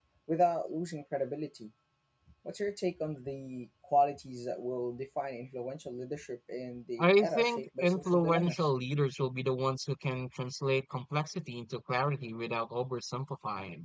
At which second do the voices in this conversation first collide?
7.0 s

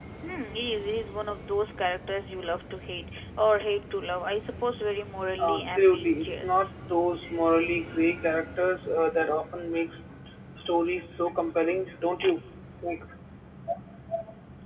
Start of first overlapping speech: 5.2 s

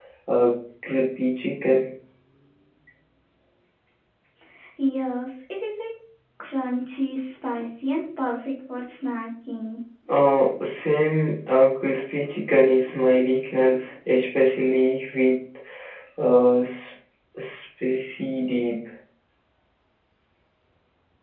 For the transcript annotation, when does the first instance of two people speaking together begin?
none

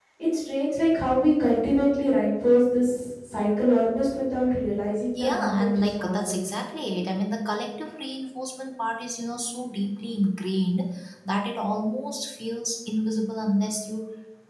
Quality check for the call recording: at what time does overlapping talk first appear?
5.2 s

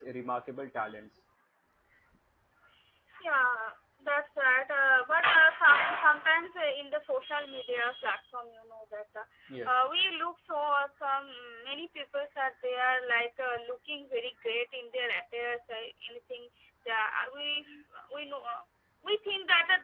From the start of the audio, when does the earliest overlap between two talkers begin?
none

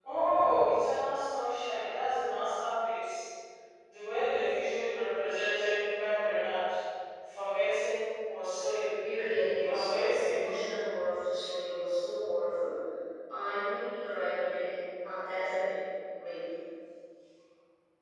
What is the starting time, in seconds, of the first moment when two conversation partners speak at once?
9.0 s

